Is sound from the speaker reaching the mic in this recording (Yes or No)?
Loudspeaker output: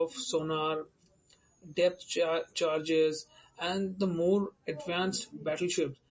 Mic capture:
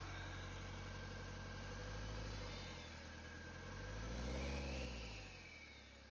No